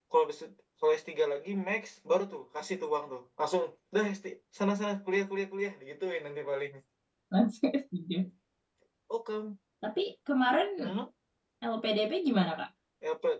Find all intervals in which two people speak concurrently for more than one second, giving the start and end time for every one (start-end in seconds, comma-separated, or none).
none